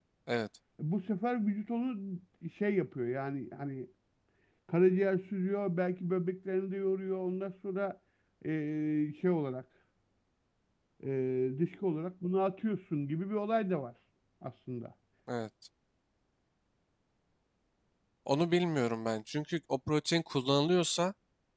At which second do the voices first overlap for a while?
none

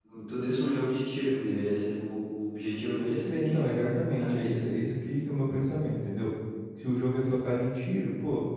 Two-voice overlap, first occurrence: 3.0 s

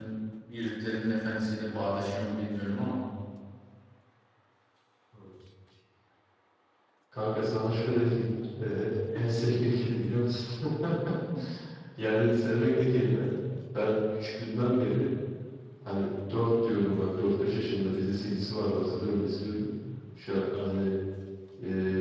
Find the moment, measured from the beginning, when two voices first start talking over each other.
none

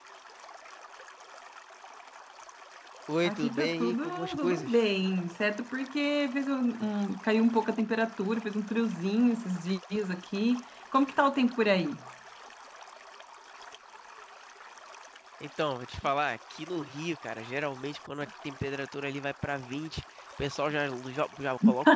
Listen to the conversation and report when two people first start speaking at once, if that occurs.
3.2 s

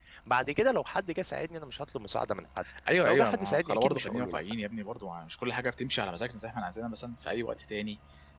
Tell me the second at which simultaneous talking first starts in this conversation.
3.0 s

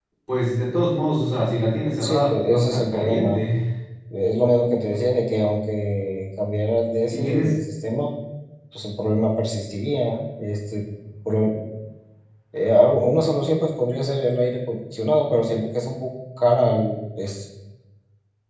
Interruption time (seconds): 2.0 s

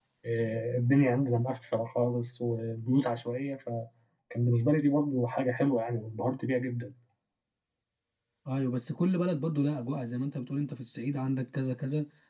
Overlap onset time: none

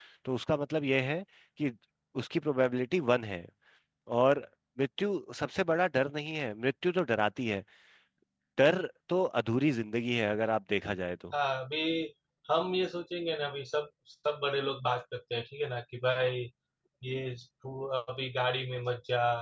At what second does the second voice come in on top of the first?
none

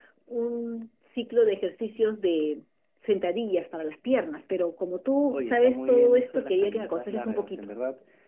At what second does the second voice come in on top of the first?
5.3 s

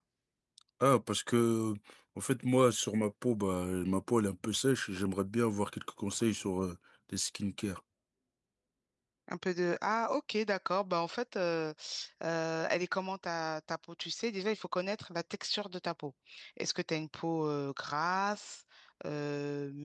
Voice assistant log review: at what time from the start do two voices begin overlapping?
none

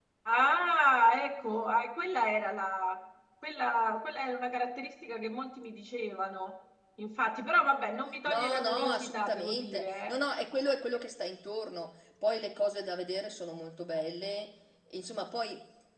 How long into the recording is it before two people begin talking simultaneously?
8.2 s

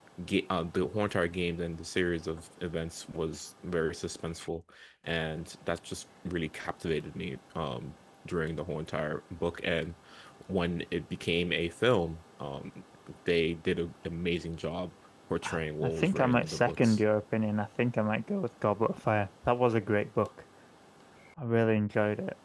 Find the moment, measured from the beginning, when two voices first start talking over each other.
15.4 s

